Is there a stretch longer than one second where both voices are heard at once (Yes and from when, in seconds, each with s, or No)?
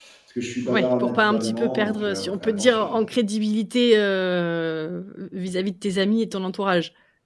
Yes, from 0.7 s